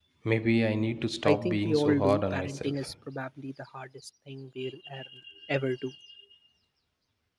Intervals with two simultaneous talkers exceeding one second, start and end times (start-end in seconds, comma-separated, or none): 1.2-2.9